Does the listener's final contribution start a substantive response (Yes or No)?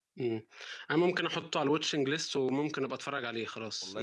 Yes